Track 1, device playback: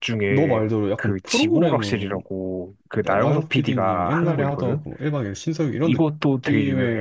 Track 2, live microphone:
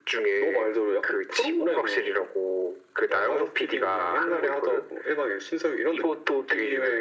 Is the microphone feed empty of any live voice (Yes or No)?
Yes